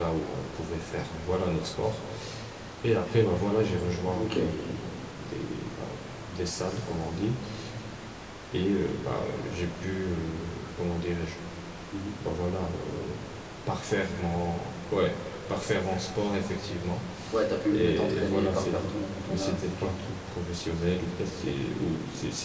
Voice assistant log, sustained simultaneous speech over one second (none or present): present